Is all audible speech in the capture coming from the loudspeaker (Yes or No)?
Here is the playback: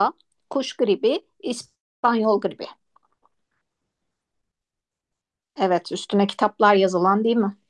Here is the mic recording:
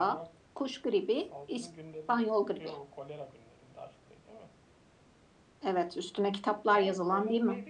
No